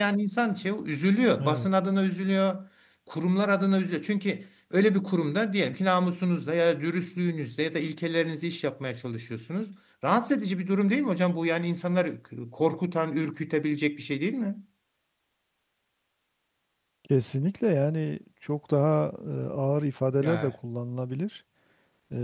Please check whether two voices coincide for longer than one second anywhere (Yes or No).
No